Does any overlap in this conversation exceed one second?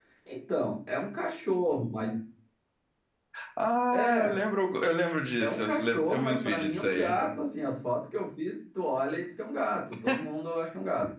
Yes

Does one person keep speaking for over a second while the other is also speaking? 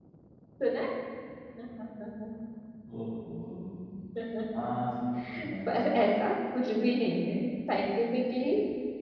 No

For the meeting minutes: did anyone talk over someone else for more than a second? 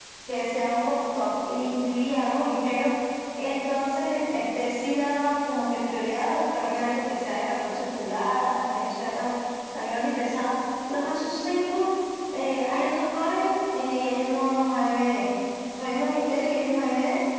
No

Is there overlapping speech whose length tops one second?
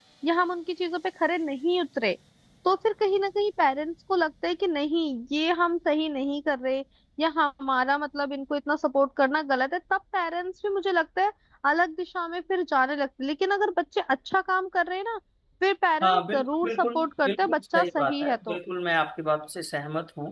Yes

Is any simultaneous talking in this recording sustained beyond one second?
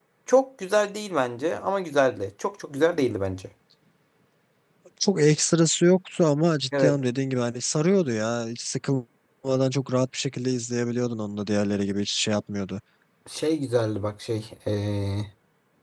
No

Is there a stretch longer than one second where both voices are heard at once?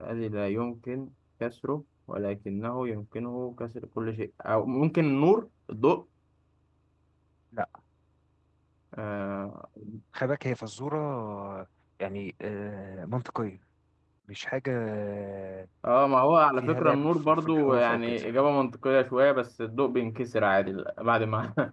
Yes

